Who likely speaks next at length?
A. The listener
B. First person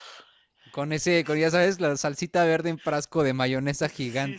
A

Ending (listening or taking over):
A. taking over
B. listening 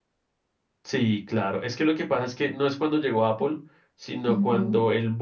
B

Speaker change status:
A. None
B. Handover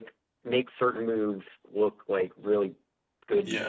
A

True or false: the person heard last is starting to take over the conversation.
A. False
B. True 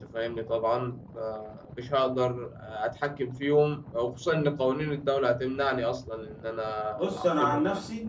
B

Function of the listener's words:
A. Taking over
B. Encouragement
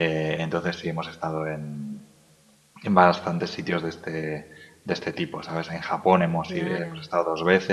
B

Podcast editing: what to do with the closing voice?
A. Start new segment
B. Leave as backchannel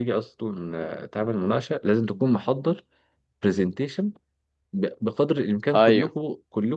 B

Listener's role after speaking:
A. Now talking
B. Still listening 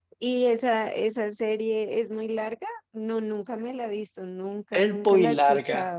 A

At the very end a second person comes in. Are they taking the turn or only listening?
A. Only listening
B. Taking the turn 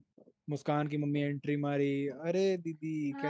B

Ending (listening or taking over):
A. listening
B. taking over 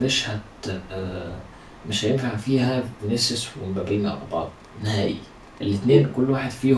A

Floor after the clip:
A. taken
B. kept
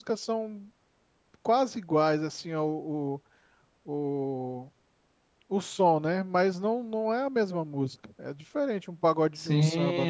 A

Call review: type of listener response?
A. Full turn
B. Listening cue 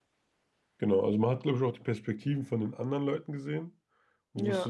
B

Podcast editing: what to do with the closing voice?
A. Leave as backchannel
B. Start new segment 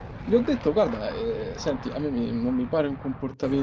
A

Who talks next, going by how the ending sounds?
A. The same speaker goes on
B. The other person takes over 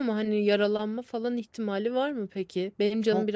B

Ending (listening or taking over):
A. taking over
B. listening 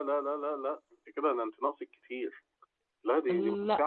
B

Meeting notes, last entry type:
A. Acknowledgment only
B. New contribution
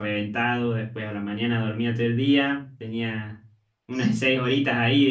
A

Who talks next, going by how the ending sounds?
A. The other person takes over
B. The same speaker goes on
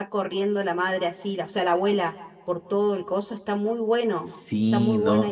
A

